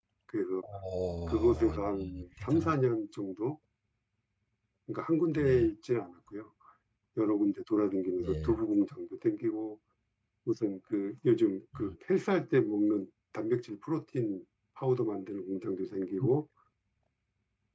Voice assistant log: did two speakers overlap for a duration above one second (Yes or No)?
Yes